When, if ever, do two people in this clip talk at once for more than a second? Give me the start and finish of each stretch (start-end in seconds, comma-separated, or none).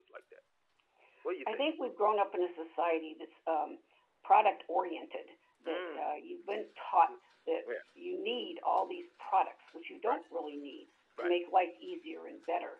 none